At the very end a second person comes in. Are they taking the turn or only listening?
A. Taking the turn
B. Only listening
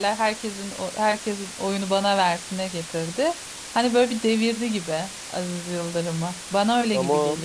A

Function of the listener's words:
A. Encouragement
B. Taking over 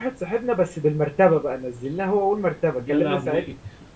A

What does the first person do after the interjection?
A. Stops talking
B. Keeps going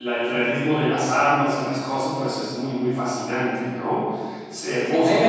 A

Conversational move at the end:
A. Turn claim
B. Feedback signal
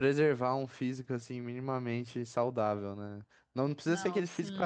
B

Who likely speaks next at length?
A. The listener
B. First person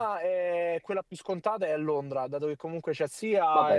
B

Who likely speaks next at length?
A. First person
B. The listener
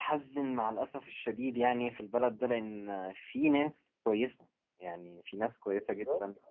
A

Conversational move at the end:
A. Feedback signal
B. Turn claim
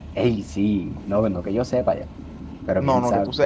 B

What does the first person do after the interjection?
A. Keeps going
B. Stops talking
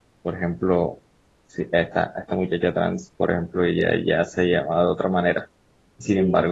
A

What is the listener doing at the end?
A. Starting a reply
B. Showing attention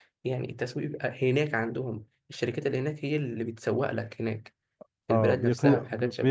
A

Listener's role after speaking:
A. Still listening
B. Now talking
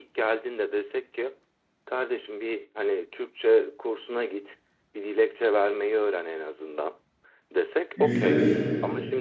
A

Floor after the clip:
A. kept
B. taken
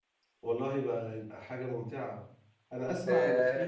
A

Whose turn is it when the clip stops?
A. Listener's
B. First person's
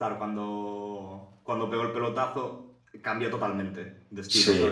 A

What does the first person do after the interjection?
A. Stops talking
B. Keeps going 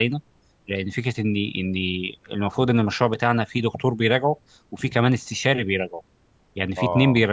B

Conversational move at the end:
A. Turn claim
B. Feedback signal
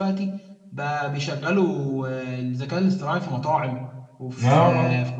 B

